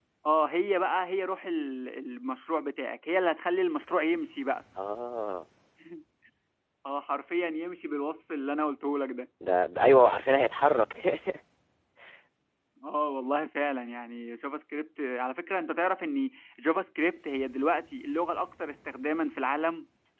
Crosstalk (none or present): none